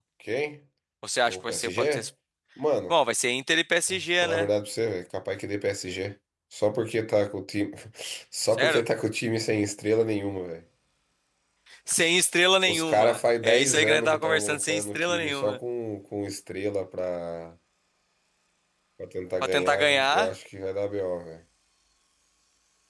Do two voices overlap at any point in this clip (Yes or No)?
Yes